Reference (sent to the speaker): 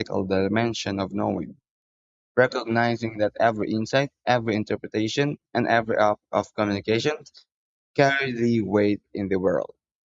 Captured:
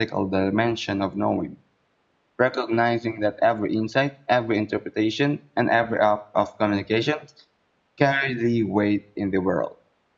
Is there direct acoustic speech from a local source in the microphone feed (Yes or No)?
No